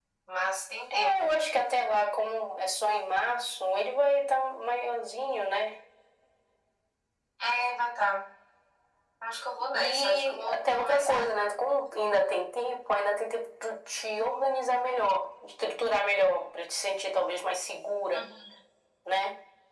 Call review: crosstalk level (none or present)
present